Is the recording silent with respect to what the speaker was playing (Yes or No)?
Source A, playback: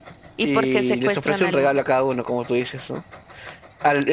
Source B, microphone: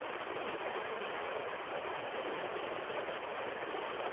Yes